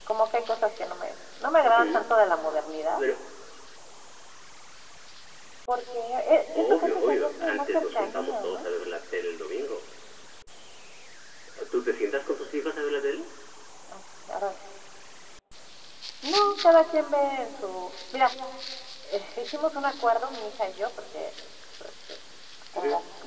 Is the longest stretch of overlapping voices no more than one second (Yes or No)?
No